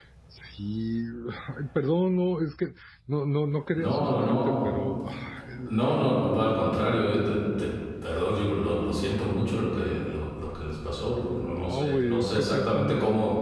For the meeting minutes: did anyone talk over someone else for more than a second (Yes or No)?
Yes